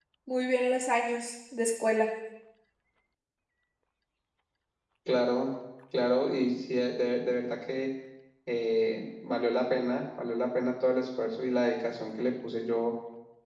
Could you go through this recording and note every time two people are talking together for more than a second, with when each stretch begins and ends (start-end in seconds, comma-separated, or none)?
none